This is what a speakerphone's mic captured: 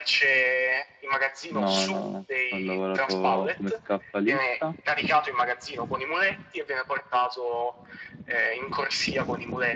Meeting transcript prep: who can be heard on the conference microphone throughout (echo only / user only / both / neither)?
both